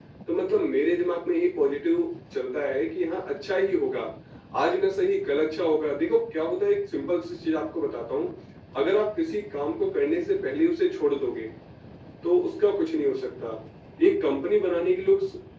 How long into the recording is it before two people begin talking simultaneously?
none

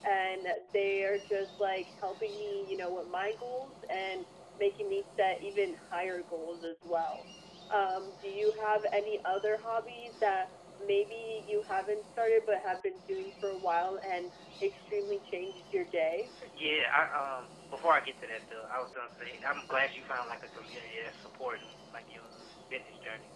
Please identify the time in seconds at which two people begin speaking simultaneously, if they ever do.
none

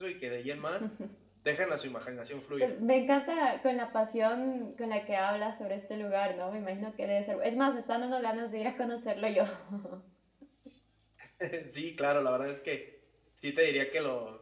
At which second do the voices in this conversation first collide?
none

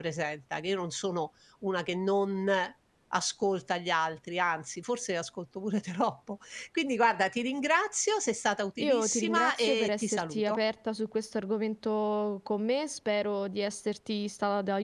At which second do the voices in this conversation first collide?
8.8 s

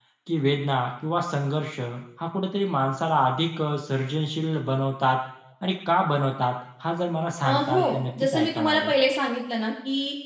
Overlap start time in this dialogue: 7.4 s

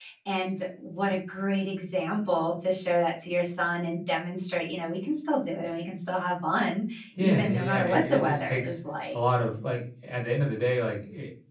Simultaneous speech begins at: 7.2 s

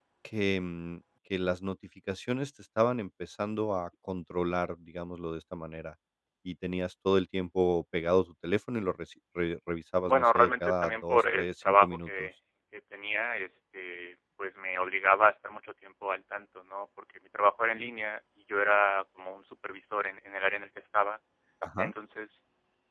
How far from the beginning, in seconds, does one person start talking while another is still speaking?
10.0 s

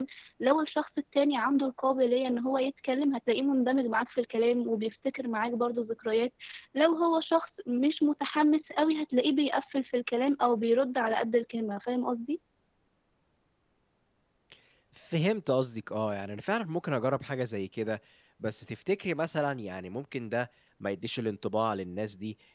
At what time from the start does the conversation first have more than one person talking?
none

